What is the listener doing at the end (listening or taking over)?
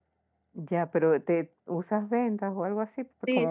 taking over